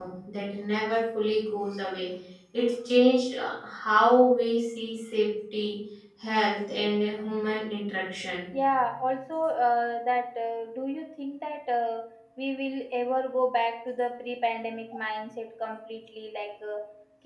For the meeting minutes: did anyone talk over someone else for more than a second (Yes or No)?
No